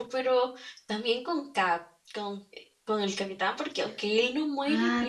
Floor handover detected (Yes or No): Yes